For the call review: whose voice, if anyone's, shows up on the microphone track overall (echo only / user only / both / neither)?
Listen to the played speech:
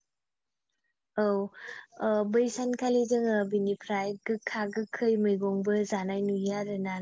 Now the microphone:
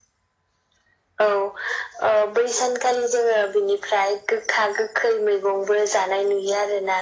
echo only